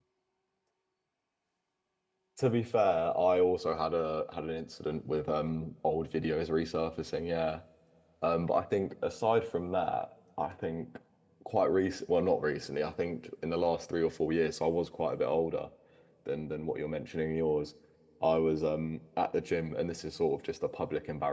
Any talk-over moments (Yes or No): No